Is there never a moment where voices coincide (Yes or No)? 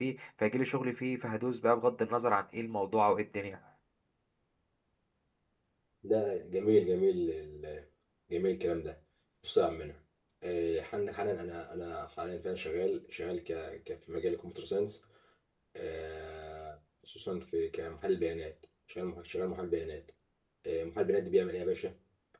Yes